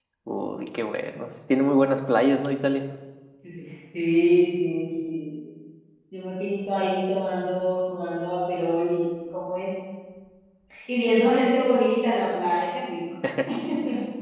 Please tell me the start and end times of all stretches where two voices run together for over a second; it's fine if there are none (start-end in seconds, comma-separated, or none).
none